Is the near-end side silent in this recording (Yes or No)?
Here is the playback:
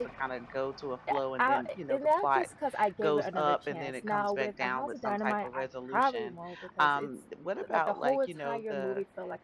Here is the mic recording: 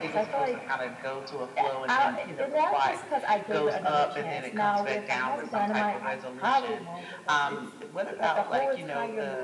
Yes